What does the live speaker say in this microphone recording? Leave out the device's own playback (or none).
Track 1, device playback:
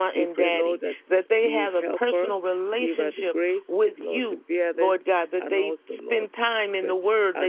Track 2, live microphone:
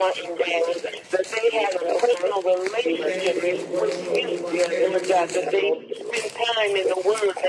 we thank you for watching over everyone in this room